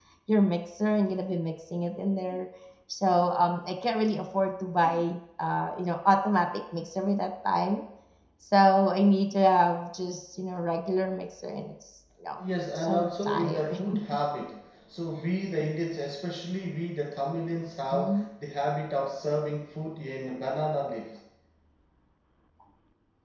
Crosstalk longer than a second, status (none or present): present